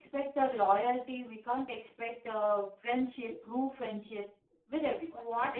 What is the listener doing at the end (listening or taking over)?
taking over